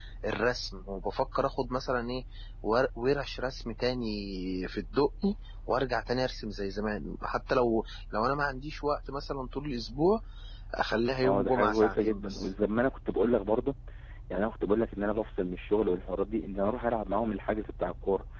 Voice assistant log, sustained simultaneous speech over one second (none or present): present